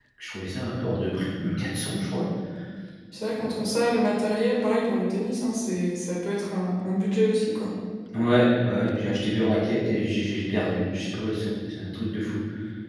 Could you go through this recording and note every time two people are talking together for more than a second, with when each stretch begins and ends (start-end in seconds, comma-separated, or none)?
none